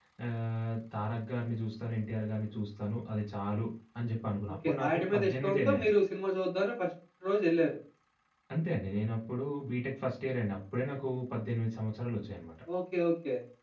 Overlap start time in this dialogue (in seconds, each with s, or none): 4.6 s